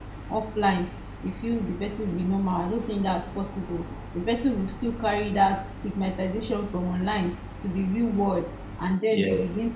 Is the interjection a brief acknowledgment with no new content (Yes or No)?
Yes